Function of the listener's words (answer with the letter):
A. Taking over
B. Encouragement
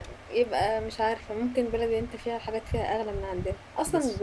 B